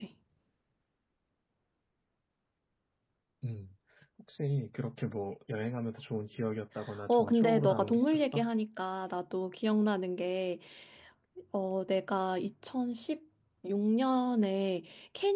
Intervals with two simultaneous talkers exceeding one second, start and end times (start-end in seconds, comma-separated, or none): 7.1-8.5